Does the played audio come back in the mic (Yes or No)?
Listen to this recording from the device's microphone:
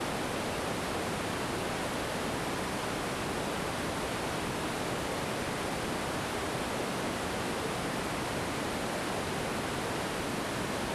No